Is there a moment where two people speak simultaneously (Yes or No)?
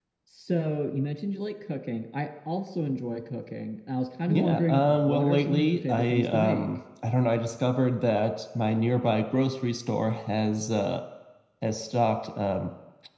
Yes